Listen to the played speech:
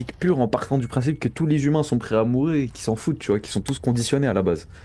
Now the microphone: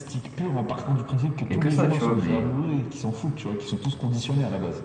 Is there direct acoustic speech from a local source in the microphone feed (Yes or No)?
Yes